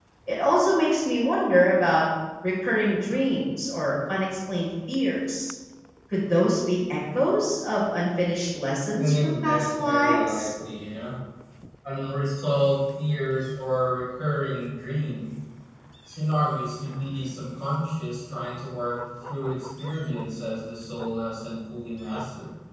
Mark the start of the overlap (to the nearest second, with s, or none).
9 s